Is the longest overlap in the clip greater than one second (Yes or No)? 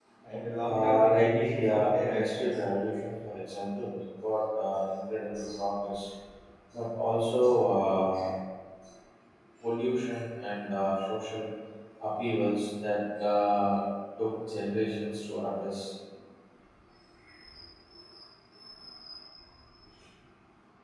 Yes